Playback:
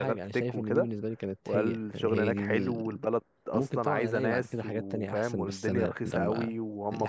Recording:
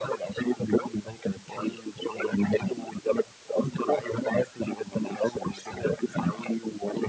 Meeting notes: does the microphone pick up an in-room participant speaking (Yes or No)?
No